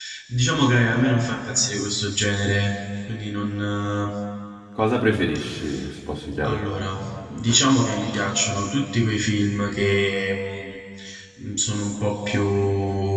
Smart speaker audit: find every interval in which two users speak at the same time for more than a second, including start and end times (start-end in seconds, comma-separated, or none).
none